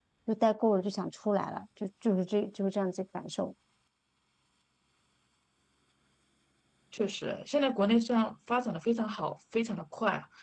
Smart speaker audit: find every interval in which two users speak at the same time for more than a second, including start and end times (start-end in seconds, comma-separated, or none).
none